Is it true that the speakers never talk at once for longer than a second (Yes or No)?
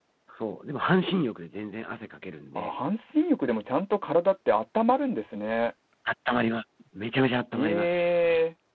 Yes